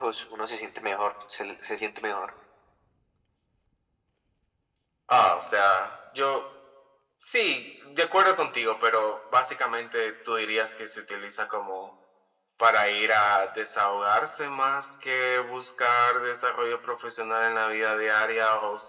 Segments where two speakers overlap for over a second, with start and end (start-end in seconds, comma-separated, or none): none